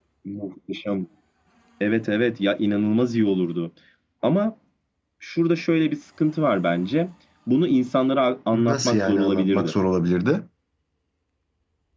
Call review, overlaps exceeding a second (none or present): present